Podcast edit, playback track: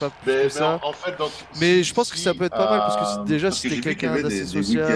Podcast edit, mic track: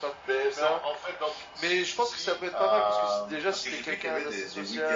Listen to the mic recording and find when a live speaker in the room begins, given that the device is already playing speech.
none

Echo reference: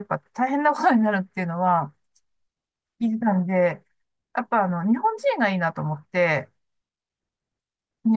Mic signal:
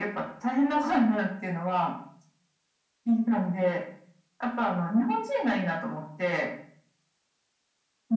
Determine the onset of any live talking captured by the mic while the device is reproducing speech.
none

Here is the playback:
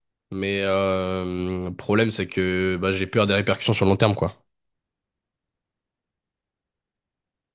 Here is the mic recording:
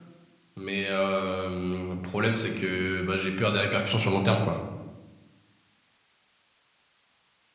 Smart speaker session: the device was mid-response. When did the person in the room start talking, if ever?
none

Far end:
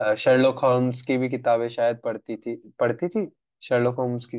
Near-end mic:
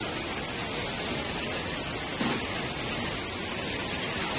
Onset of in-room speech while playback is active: none

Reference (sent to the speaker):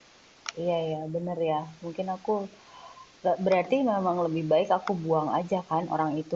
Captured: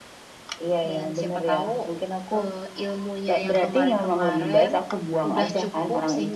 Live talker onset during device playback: 0.9 s

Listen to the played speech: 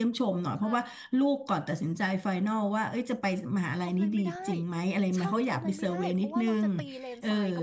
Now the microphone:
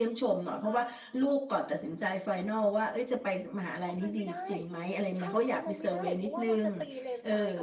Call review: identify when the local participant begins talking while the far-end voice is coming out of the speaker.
none

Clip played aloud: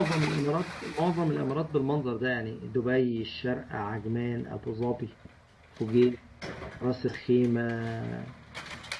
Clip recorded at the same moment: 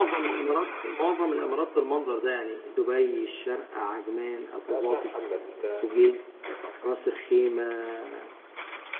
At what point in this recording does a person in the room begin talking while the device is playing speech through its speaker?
4.7 s

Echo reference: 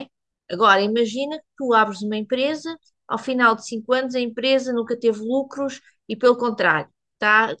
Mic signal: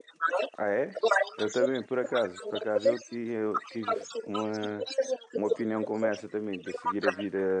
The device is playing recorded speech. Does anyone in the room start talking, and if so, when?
0.6 s

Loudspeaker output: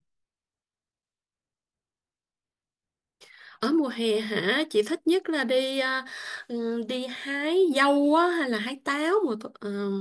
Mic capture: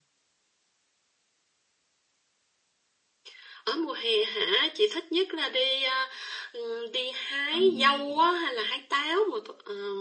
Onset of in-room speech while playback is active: 7.5 s

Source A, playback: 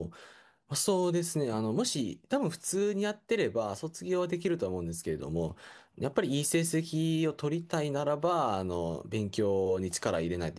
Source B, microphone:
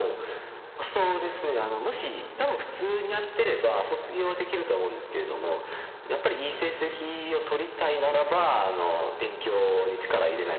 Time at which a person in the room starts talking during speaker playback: none

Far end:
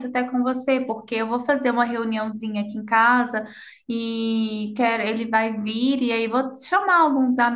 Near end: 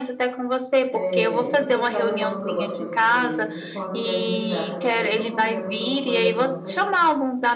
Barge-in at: 0.9 s

